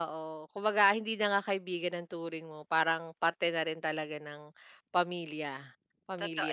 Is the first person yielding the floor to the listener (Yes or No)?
Yes